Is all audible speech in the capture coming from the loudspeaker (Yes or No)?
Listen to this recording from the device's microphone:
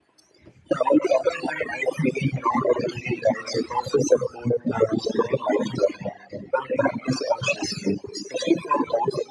Yes